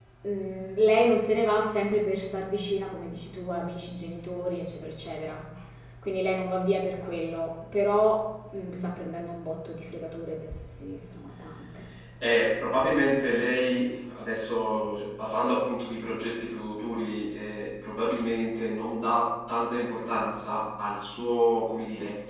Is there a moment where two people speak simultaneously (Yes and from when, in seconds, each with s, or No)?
No